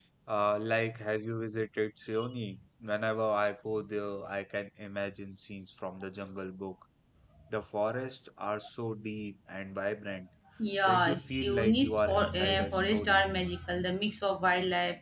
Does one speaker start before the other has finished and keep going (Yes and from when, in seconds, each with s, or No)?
Yes, from 10.8 s